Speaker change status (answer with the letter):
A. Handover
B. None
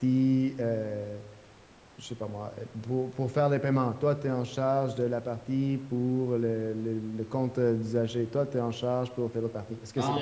A